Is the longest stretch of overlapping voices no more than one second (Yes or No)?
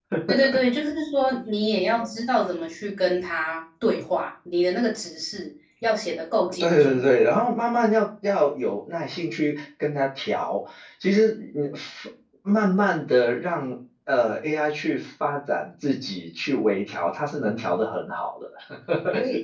Yes